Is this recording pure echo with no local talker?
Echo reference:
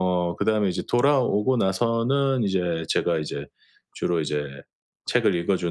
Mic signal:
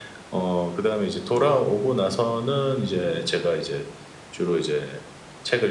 Yes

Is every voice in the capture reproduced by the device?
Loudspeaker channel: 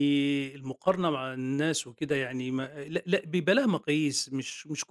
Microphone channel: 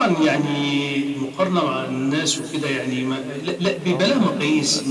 No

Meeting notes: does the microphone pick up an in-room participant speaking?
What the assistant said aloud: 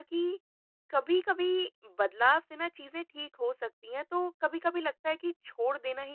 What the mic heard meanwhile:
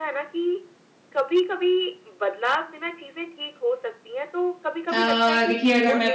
Yes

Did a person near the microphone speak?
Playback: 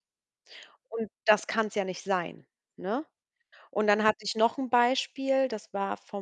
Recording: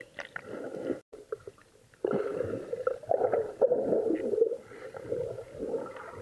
No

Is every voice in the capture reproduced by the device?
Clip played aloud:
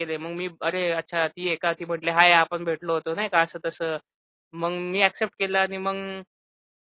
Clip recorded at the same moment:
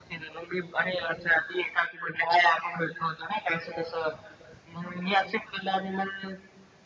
Yes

